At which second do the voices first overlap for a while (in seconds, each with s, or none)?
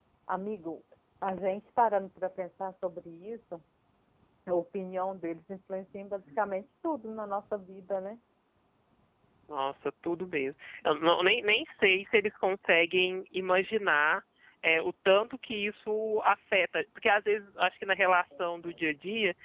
none